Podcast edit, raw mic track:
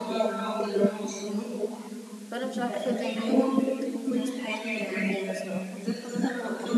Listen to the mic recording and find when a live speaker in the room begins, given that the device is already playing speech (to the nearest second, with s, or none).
2 s